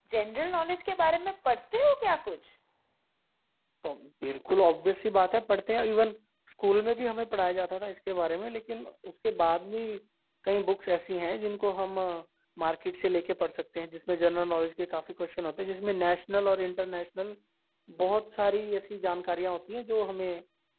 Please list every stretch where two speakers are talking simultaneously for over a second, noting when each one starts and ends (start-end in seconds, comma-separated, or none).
none